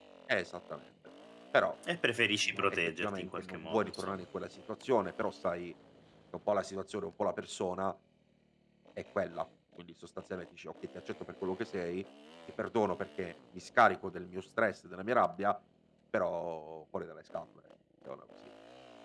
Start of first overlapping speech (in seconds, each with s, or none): 2.5 s